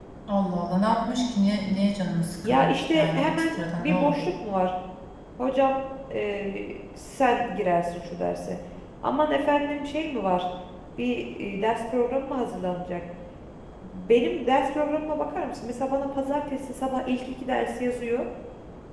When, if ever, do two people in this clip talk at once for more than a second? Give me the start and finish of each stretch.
2.4-4.3

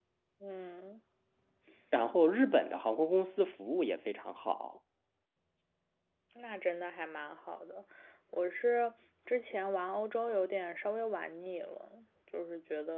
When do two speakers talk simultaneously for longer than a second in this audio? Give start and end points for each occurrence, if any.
none

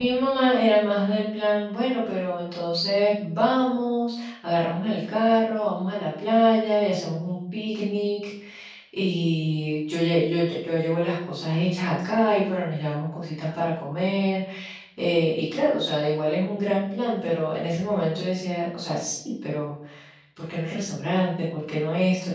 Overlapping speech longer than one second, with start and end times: none

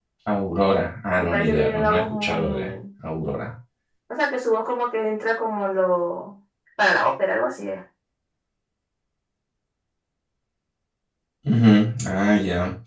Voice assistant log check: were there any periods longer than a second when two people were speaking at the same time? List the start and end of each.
1.2-2.7

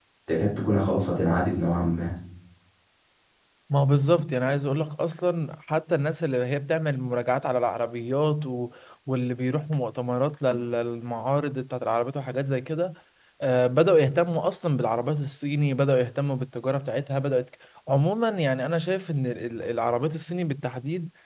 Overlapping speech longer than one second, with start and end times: none

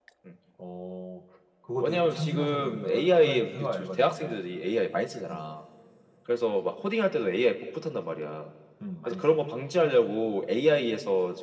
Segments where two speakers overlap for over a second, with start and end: 1.8-4.4

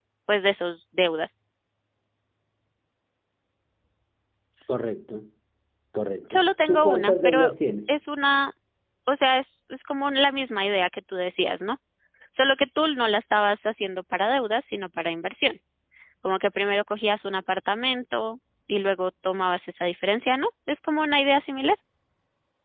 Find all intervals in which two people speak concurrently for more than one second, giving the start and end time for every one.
6.3-7.5

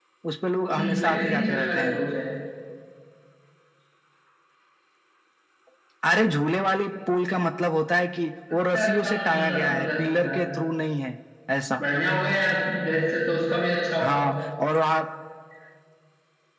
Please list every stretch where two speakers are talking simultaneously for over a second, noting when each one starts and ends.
0.7-2.0, 8.7-10.3

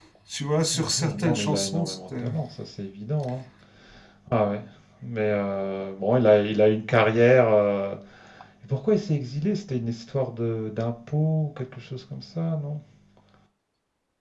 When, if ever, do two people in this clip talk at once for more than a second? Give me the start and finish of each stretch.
0.7-2.2

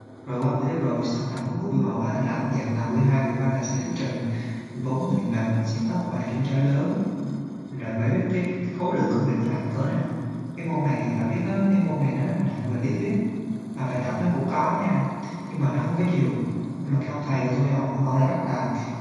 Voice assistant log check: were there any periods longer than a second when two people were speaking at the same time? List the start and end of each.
none

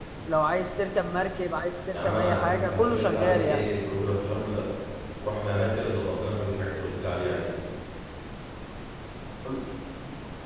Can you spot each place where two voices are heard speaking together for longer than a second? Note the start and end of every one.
1.9-3.7

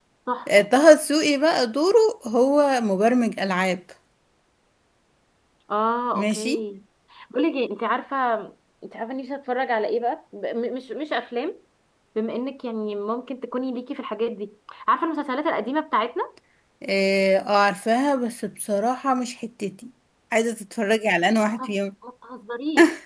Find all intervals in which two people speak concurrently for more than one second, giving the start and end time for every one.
none

